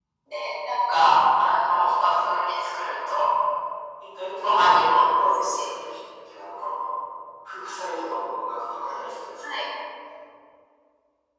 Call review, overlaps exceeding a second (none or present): present